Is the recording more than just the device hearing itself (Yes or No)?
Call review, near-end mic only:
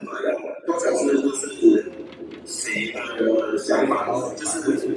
Yes